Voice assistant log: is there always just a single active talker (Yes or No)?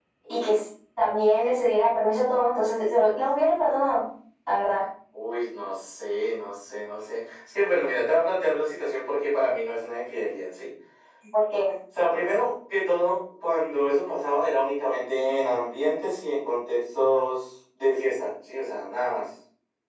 Yes